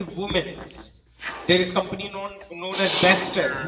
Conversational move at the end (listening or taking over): listening